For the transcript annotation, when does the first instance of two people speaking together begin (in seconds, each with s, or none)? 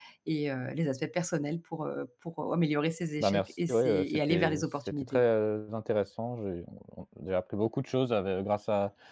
3.2 s